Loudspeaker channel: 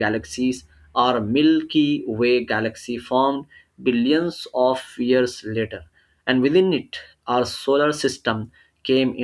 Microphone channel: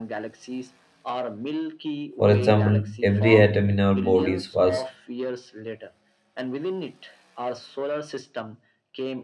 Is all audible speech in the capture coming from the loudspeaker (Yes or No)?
No